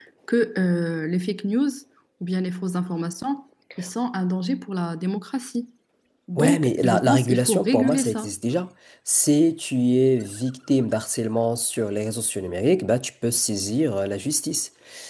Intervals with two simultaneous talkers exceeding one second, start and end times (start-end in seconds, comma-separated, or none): 6.4-8.3